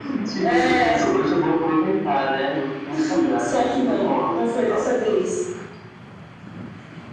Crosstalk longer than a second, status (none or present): present